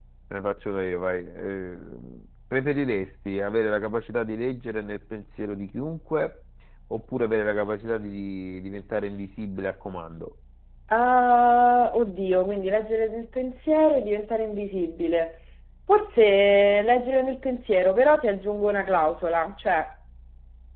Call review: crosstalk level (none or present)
none